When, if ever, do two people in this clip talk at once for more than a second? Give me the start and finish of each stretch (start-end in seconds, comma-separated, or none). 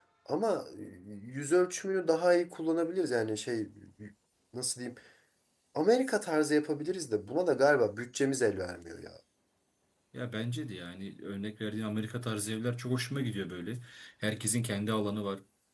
none